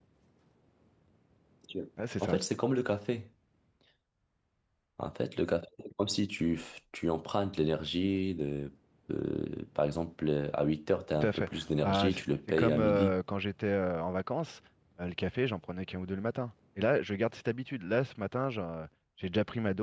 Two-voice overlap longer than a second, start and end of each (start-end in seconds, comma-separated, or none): 11.1-13.2